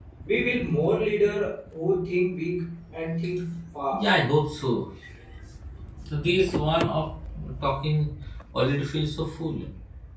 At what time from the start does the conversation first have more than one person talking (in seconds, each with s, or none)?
none